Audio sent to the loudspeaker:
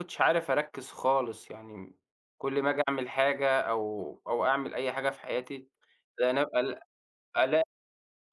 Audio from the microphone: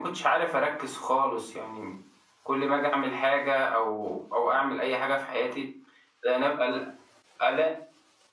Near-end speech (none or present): none